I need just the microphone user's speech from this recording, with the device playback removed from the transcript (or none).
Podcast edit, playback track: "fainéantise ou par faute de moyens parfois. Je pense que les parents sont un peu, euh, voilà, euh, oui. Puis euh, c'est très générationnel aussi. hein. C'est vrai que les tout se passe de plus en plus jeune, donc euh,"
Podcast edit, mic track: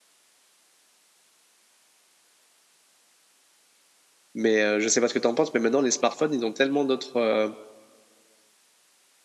Mais euh, je ne sais pas ce que tu en penses, mais maintenant, les smartphones, ils ont tellement d'autres euh,